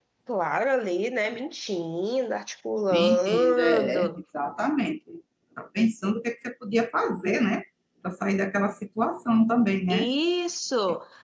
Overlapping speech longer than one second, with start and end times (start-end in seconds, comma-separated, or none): 2.9-4.2